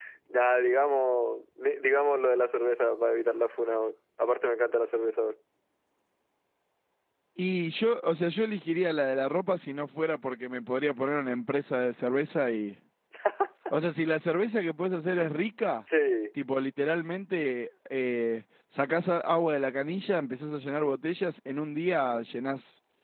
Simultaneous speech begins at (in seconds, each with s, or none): none